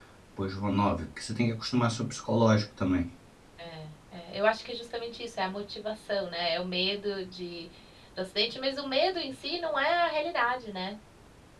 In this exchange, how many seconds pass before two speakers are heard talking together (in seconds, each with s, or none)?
none